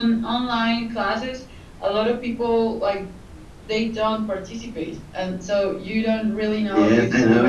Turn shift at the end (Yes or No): Yes